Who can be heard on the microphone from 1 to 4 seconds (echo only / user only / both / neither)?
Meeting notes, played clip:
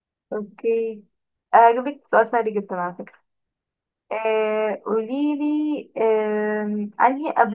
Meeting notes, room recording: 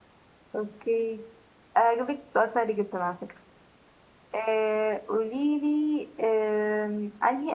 echo only